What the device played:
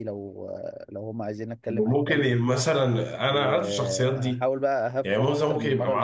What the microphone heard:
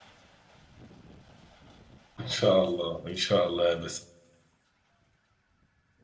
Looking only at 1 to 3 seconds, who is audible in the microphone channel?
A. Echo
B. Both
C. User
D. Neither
C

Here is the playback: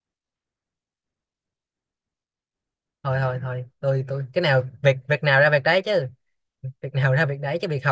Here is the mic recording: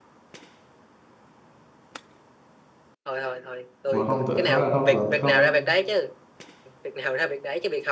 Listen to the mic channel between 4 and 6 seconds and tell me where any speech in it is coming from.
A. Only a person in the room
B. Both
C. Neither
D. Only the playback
B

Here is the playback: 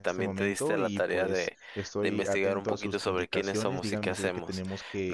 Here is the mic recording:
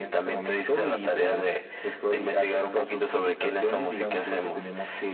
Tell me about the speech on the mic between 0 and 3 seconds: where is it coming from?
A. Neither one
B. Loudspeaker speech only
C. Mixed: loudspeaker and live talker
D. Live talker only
B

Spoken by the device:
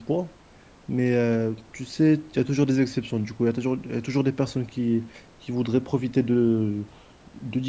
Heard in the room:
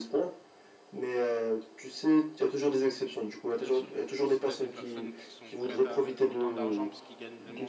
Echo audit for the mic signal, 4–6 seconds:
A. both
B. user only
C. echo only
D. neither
A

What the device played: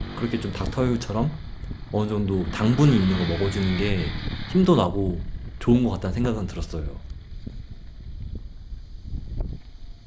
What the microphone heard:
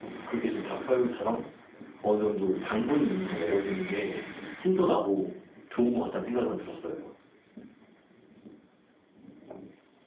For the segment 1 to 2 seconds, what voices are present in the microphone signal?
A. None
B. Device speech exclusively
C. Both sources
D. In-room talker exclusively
B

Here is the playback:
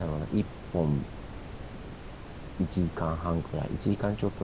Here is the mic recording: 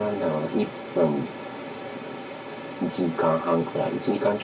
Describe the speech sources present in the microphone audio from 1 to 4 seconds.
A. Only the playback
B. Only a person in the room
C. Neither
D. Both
A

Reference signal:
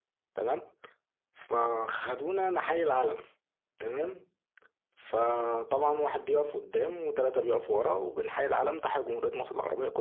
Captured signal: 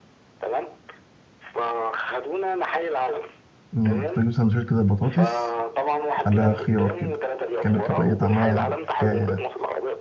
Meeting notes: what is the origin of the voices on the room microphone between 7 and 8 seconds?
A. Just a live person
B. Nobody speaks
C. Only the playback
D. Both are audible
D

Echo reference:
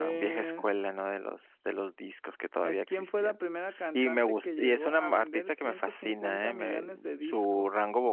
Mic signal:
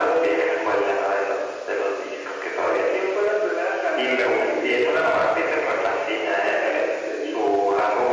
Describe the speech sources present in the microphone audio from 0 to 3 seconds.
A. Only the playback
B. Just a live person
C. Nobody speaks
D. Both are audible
A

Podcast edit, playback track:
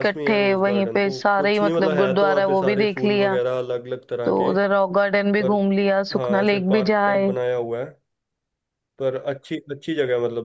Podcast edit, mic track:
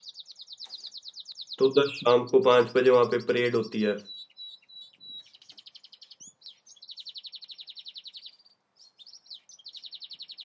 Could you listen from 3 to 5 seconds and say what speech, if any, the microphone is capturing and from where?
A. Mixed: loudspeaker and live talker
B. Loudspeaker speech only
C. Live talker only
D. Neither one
C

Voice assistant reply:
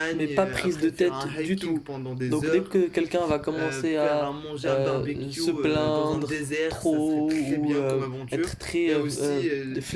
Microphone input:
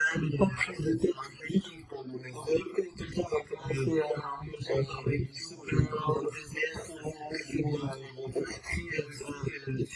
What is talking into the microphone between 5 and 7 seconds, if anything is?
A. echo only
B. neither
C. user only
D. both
A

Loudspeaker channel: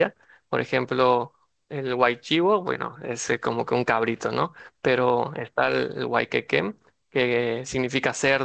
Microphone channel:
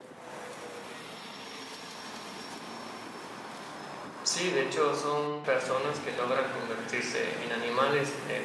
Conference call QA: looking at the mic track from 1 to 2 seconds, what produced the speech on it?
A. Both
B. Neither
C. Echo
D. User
B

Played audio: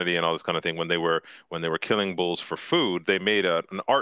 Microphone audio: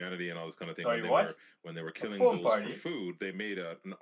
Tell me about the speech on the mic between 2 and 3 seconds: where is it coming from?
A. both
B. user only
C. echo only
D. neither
A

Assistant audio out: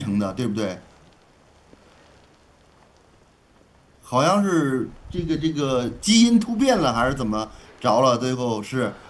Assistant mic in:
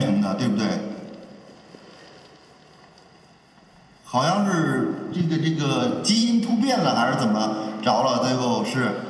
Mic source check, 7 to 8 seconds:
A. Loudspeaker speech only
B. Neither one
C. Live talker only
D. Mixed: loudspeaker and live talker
A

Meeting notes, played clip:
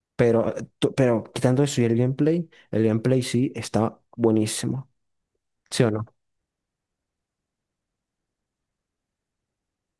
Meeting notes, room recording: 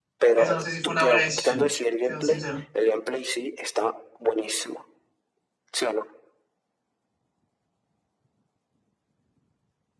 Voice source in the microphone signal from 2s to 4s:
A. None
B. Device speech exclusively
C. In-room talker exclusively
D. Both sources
D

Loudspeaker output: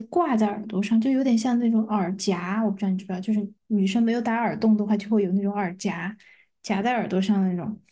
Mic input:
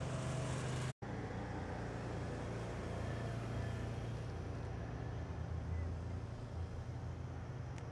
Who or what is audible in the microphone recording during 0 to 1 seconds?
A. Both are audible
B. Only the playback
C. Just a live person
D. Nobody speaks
D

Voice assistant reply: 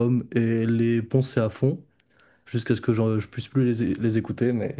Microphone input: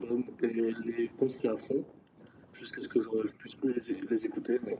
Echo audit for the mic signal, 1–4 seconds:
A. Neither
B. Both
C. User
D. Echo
D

